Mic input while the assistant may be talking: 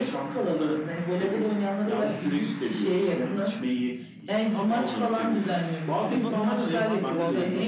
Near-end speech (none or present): present